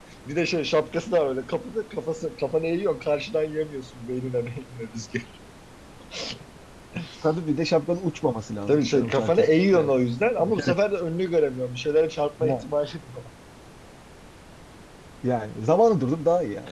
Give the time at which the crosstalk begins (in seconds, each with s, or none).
8.7 s